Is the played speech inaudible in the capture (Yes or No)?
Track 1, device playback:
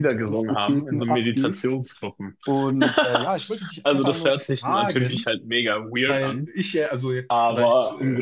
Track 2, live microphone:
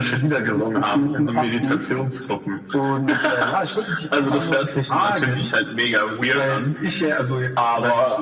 No